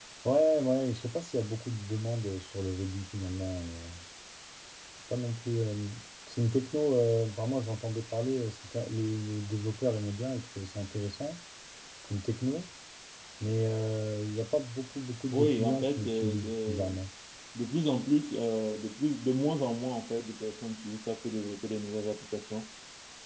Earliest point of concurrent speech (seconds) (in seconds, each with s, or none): 15.3 s